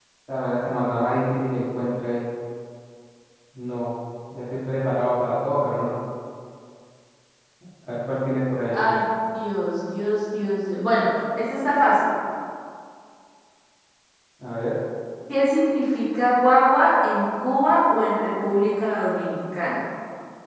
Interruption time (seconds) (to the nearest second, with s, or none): none